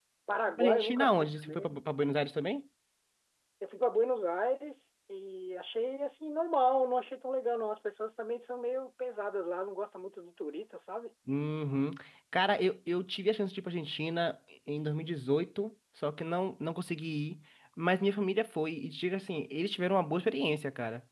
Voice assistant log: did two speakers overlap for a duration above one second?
Yes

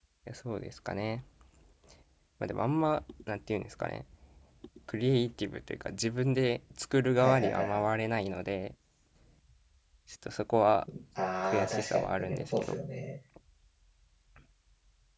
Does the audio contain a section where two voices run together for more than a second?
Yes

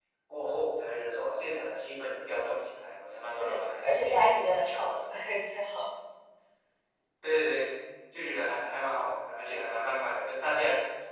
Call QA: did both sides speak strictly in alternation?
No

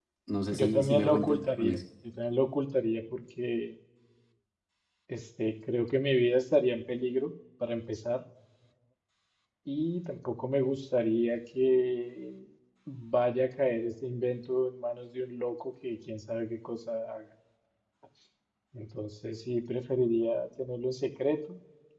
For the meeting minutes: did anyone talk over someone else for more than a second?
Yes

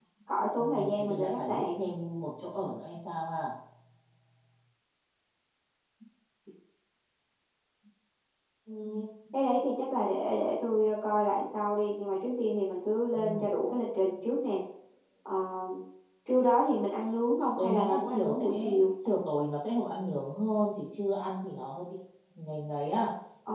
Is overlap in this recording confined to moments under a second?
No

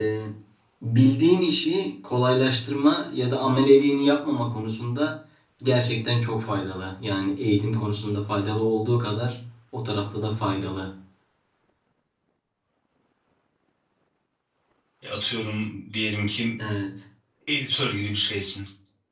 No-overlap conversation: Yes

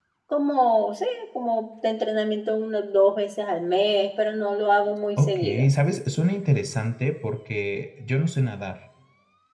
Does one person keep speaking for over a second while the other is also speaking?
No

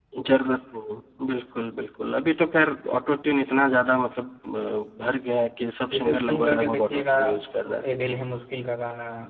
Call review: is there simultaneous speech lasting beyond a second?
Yes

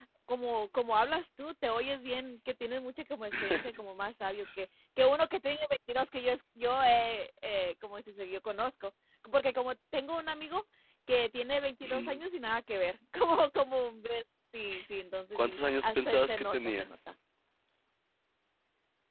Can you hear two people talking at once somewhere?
Yes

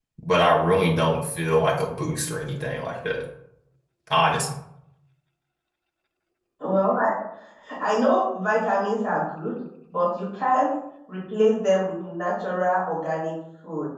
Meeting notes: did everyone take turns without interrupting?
Yes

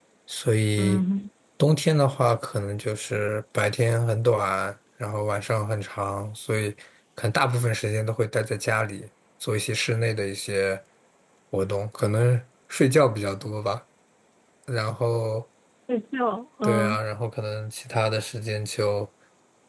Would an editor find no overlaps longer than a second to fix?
Yes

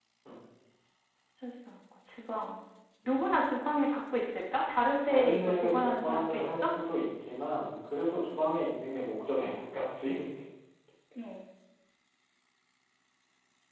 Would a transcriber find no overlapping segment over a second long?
No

